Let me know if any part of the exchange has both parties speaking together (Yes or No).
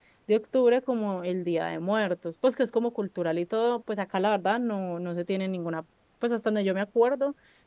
No